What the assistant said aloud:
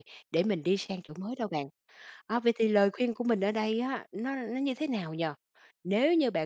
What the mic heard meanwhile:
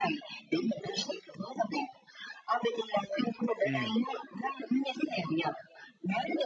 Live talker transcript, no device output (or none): Ừm.